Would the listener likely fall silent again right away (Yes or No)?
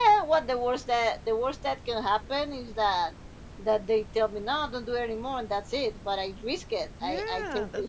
No